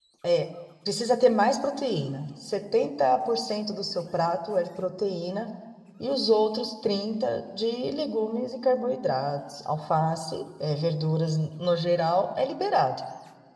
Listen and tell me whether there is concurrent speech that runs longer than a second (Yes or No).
No